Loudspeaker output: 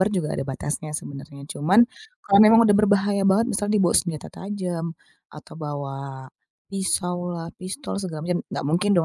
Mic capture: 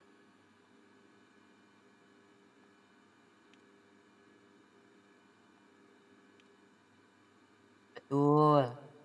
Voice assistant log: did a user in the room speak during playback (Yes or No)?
Yes